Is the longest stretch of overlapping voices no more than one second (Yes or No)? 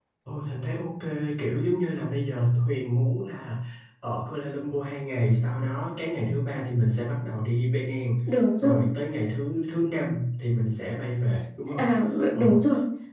Yes